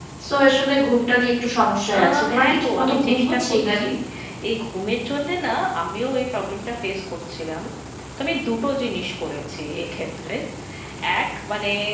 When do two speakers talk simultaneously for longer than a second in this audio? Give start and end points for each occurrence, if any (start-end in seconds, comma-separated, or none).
1.9-3.8